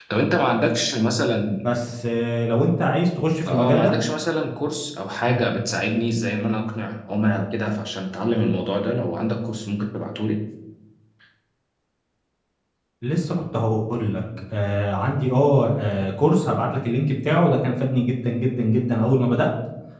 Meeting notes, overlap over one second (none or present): none